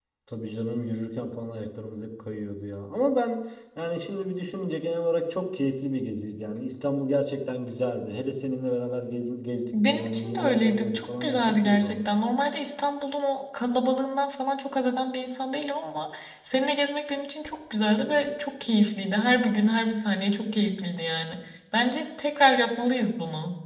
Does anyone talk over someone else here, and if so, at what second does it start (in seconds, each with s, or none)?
9.7 s